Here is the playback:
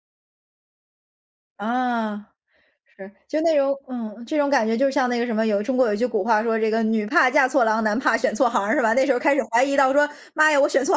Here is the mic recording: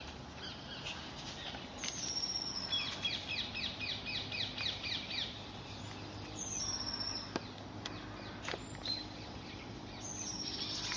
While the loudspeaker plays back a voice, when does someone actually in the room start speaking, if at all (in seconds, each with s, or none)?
none